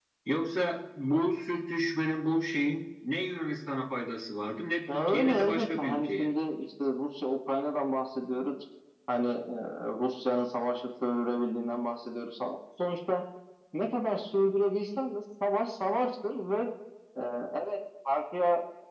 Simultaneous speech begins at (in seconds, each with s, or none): 4.9 s